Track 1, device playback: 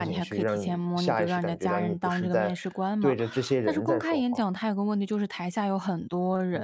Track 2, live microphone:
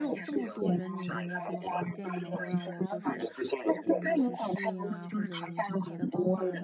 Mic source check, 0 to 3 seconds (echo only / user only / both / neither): both